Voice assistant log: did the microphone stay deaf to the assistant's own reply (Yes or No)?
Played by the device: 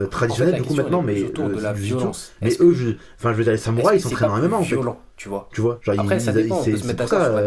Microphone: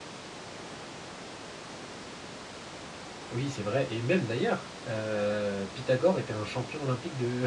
Yes